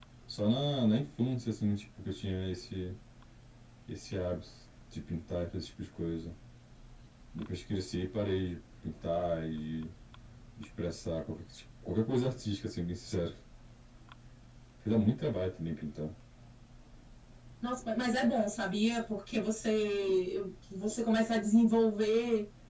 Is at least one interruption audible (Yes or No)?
No